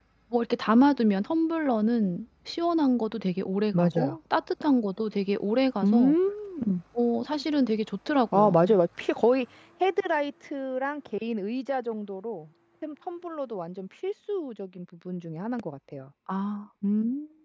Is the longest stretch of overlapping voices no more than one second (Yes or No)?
Yes